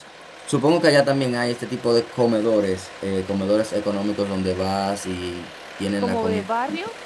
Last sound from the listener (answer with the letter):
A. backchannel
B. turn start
B